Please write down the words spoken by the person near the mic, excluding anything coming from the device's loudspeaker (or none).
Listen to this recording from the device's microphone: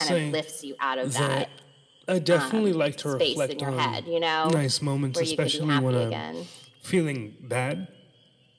none